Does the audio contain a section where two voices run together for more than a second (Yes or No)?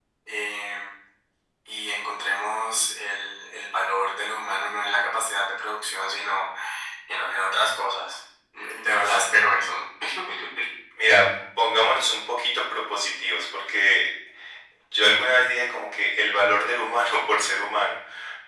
No